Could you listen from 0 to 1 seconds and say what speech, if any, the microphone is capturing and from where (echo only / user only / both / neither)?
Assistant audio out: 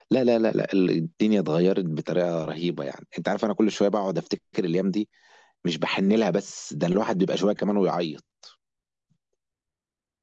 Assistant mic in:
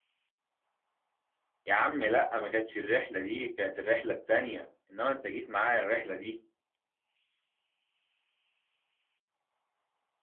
neither